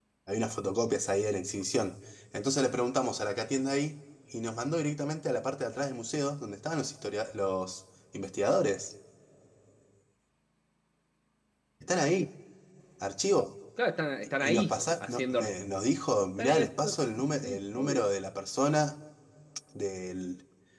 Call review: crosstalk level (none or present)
present